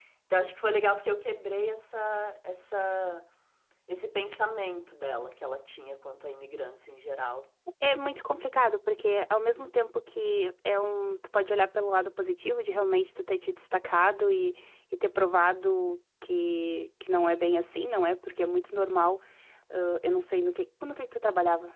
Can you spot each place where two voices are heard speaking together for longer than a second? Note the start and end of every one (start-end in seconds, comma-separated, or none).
none